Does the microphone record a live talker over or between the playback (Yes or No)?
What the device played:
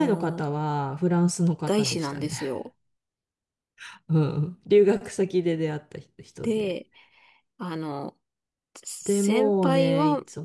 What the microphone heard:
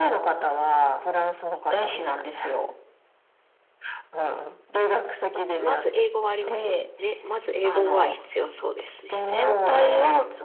Yes